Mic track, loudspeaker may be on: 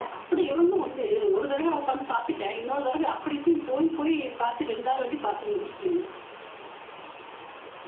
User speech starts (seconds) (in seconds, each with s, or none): none